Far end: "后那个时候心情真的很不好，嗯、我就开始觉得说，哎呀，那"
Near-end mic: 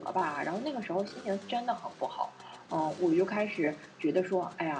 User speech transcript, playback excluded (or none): none